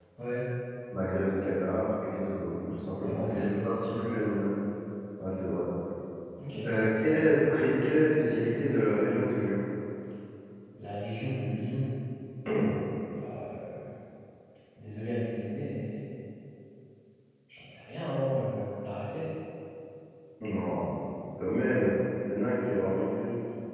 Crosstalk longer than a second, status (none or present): present